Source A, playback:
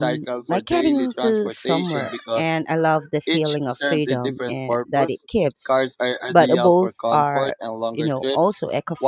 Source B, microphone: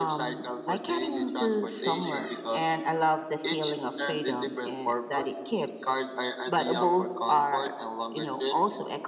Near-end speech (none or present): none